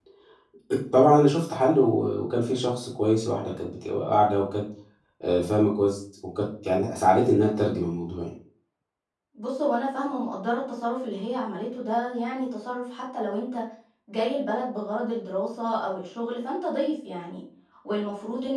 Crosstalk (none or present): none